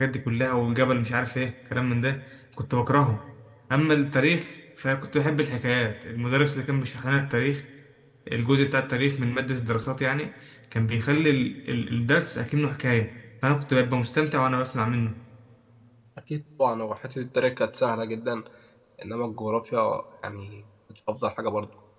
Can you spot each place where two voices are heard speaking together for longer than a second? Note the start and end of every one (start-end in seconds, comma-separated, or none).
none